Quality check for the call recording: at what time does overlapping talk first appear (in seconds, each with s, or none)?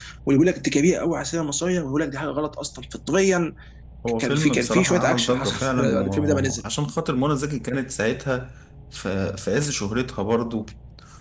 4.2 s